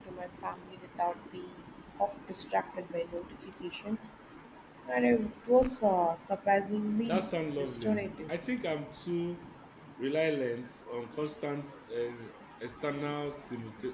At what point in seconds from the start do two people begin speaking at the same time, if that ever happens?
7 s

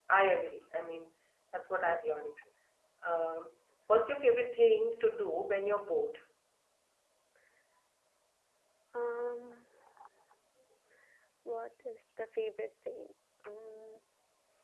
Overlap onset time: none

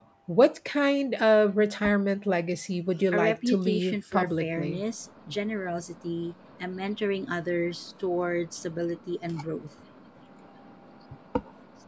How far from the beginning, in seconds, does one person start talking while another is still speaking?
3 s

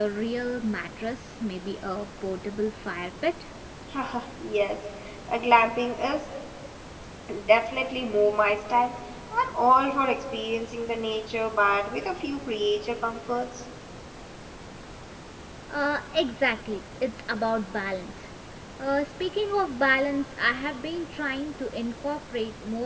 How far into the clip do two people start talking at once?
none

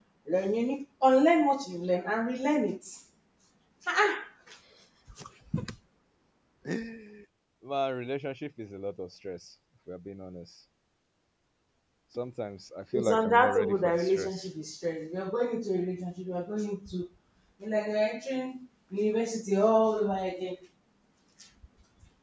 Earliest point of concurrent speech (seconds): 13 s

